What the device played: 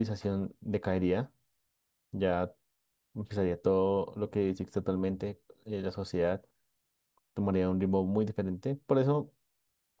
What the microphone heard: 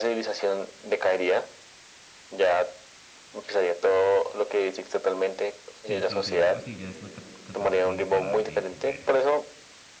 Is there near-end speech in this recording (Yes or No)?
Yes